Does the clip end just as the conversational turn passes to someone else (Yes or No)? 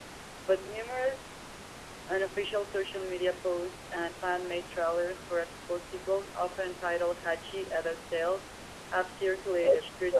No